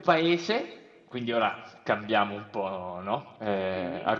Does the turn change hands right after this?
No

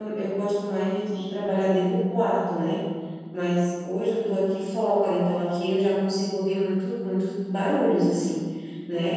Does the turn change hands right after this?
No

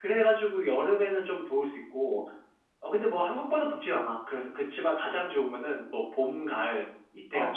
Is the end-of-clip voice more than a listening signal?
Yes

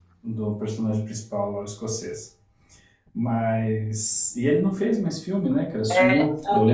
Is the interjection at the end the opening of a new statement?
Yes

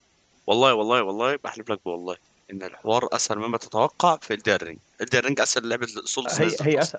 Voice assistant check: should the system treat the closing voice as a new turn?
Yes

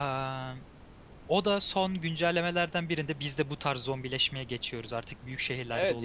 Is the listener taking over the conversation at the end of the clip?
Yes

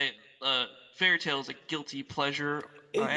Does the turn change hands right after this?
Yes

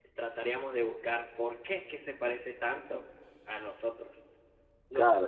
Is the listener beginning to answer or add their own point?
Yes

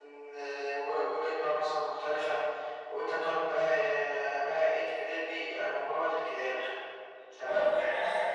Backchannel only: No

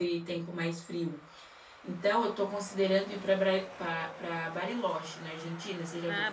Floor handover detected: Yes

